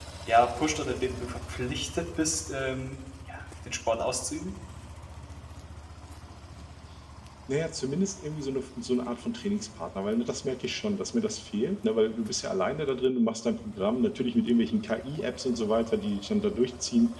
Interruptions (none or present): none